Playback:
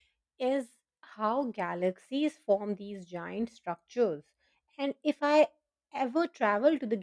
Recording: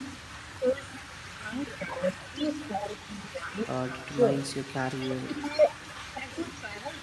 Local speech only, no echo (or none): uh, determines your career